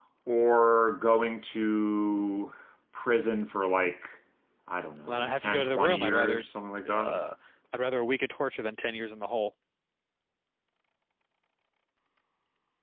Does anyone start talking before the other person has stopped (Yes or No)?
Yes